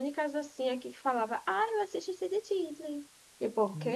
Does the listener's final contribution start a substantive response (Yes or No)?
Yes